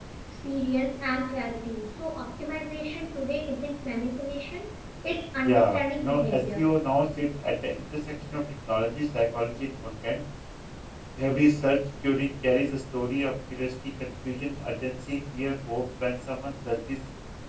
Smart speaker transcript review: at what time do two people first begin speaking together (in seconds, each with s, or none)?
5.4 s